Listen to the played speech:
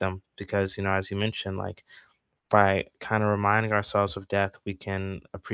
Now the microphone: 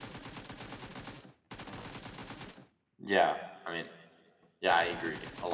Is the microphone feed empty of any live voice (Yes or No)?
No